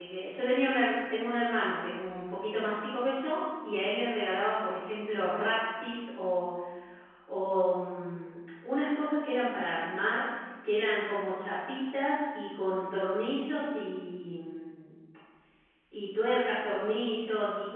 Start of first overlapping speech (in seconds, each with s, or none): none